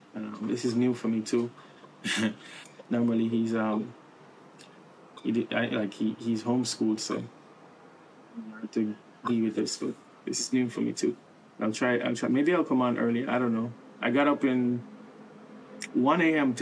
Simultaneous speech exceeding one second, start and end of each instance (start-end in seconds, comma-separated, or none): none